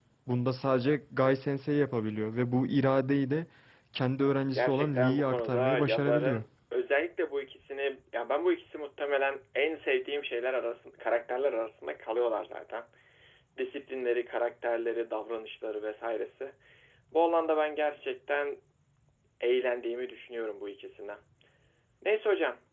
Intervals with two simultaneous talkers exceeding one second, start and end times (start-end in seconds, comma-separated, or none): 4.6-6.4